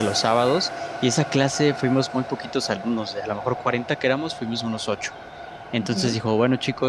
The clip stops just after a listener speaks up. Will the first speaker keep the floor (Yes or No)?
Yes